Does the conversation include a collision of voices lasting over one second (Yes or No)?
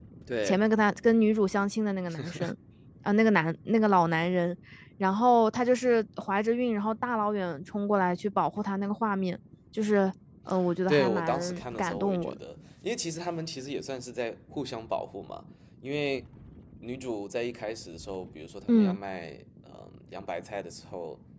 Yes